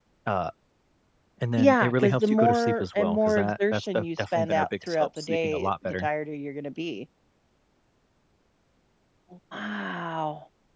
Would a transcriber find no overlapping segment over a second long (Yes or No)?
No